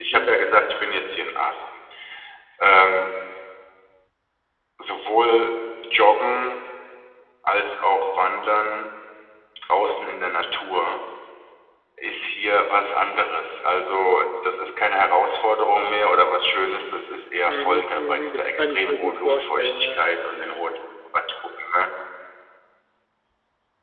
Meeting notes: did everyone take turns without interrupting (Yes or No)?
No